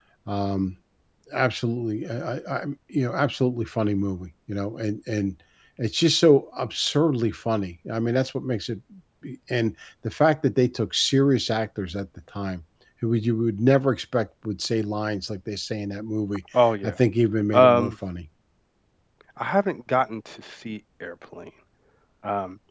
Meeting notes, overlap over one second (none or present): none